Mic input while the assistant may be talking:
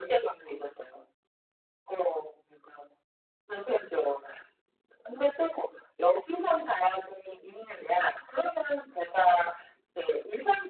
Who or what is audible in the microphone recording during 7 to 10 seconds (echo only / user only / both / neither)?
echo only